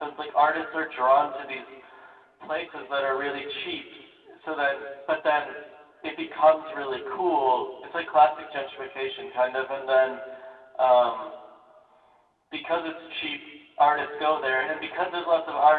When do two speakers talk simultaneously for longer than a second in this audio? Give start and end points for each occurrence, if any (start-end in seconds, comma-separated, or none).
none